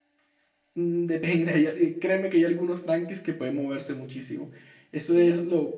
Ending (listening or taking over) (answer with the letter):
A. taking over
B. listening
B